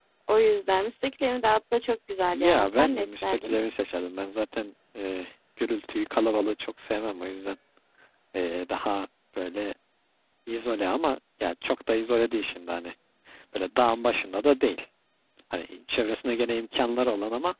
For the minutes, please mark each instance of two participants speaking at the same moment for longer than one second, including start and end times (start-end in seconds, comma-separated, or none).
2.3-3.6